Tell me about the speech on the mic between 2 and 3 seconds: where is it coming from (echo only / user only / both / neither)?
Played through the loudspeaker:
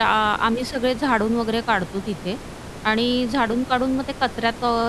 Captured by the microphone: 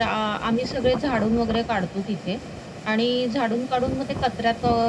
echo only